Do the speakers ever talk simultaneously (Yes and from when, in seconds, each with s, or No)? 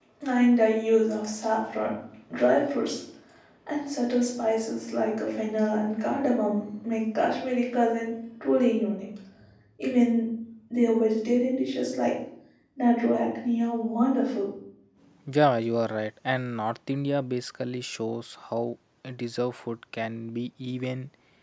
No